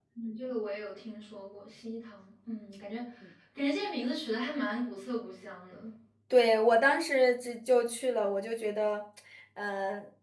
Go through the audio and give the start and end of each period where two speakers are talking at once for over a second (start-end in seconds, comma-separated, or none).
none